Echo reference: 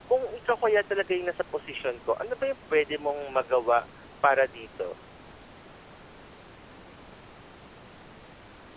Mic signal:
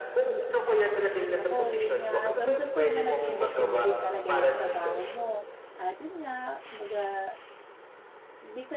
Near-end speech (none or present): present